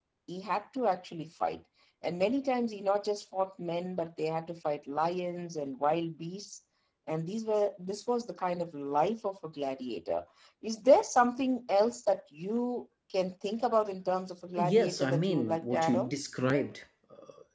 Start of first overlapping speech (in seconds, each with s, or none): 14.6 s